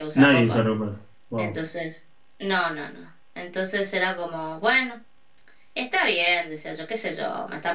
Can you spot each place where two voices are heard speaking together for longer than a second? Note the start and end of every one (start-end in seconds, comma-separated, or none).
none